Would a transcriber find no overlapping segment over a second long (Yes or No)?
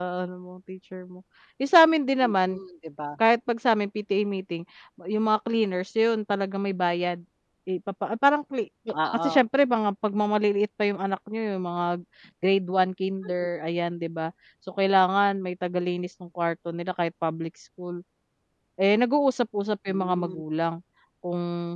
Yes